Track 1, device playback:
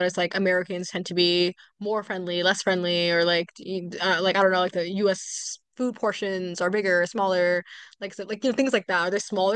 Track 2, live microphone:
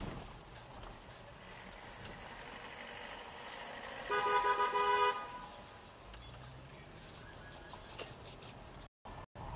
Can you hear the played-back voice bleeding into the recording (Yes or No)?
No